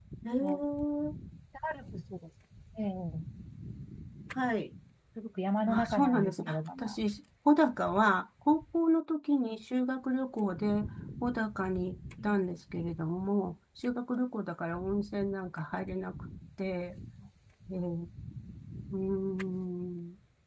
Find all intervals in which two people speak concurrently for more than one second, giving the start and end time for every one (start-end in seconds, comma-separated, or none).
5.7-7.0